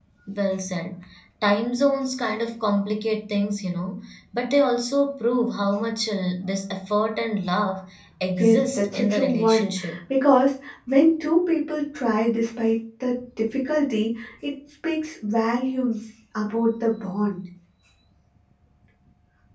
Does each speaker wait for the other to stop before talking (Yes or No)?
No